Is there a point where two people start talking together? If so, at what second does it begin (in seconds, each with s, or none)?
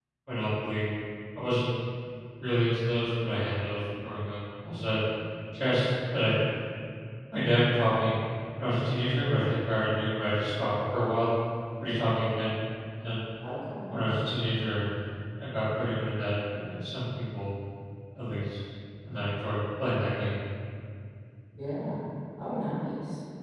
none